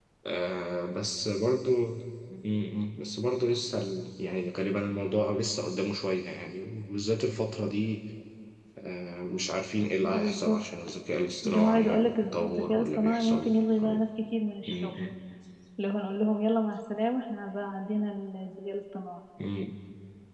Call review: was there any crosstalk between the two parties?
Yes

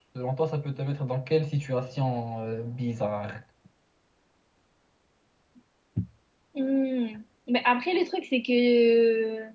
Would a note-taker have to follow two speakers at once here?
No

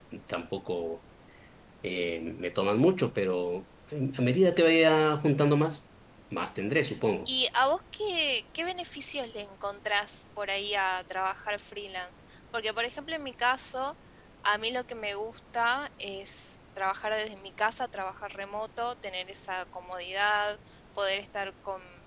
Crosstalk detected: No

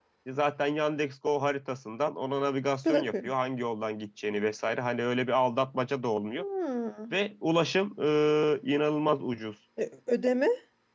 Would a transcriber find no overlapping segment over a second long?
Yes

